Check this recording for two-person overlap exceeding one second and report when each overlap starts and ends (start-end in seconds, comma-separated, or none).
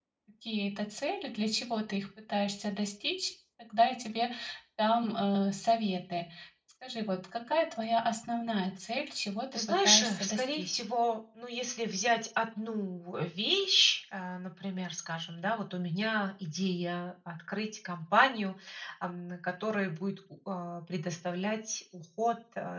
9.5-10.8